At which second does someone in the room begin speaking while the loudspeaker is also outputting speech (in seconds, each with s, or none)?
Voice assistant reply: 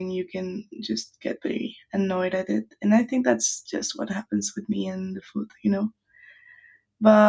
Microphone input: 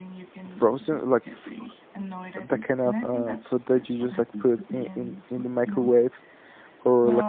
0.5 s